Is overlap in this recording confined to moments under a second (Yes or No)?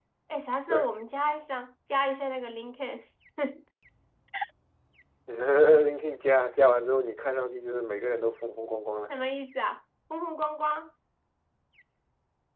Yes